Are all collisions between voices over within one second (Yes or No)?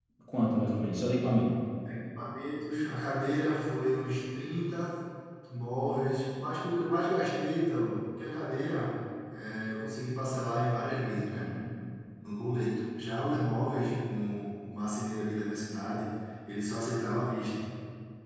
Yes